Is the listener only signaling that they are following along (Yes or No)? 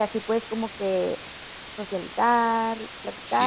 Yes